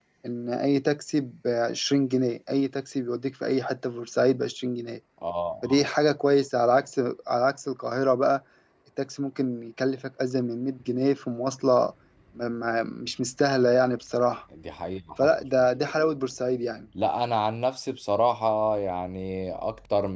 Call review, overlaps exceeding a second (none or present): none